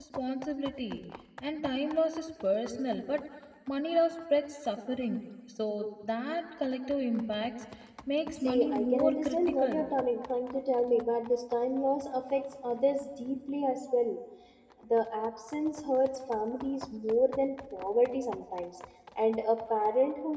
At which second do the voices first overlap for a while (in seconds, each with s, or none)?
8.4 s